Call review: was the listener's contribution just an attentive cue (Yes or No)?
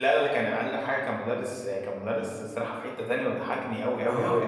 No